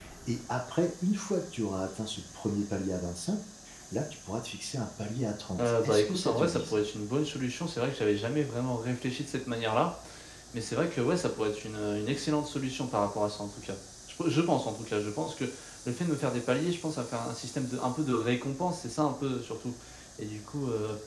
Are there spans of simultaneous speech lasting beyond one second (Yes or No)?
Yes